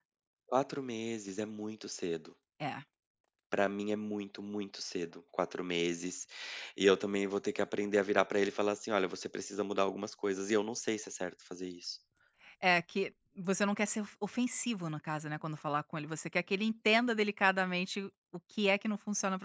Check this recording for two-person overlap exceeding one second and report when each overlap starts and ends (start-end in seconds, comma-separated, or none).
none